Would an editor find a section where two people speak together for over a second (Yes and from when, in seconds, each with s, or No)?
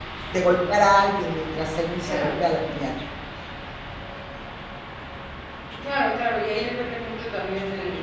No